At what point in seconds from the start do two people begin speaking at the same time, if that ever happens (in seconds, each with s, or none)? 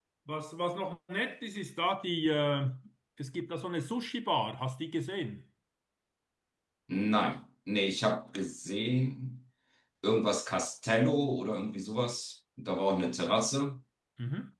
none